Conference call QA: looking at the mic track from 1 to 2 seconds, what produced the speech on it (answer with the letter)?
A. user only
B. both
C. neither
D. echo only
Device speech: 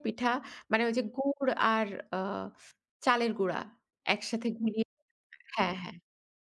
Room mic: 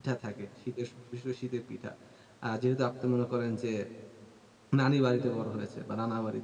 A